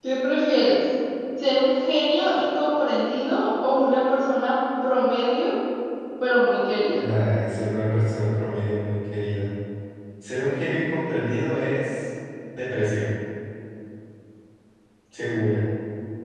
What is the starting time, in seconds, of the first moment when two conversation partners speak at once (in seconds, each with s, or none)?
none